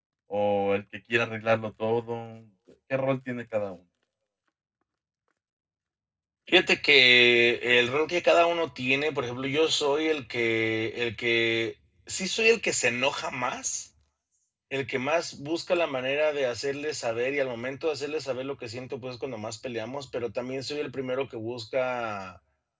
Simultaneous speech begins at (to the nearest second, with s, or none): none